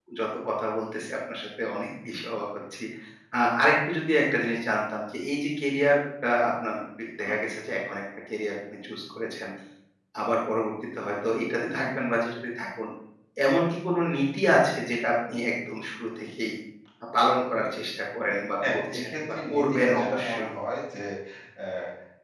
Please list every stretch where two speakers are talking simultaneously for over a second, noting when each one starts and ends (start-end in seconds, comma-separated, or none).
18.7-20.5